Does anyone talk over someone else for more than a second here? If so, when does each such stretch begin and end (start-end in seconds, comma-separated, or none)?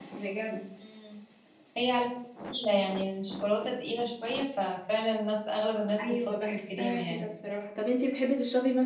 6.0-7.3